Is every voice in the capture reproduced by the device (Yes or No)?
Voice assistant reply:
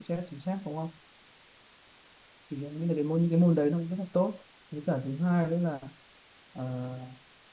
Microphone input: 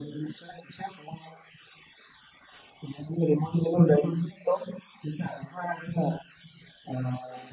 Yes